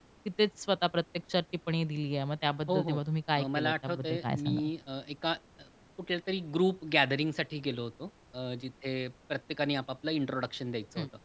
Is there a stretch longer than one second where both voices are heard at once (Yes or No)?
Yes